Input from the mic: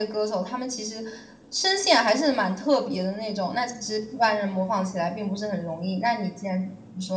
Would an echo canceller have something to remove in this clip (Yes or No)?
Yes